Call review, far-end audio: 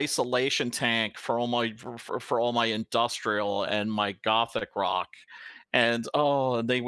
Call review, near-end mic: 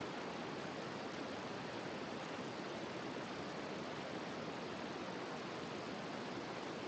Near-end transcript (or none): none